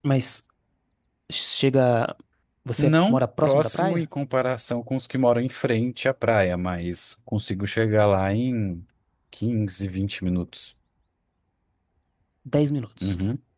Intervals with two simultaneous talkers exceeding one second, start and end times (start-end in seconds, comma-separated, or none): 2.8-4.0